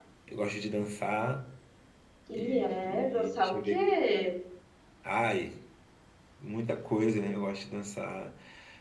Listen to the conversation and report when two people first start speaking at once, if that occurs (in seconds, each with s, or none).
2.3 s